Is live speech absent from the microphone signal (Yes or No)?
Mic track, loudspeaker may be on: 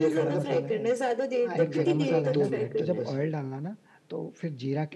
No